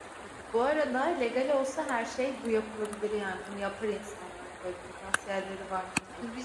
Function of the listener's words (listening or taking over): taking over